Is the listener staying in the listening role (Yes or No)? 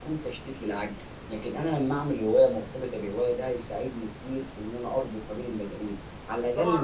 No